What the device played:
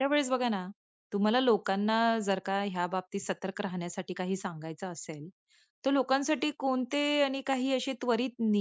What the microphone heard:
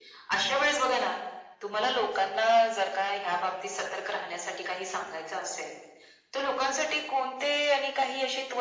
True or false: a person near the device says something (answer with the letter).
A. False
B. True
A